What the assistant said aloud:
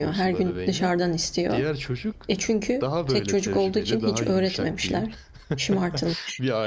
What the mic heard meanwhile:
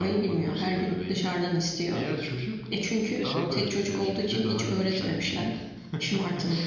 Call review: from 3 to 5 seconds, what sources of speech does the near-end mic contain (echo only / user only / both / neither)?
both